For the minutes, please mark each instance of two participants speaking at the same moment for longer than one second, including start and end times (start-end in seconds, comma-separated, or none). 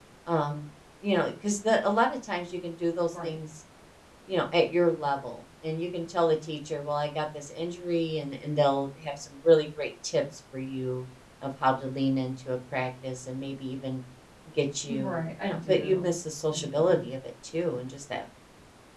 14.9-16.1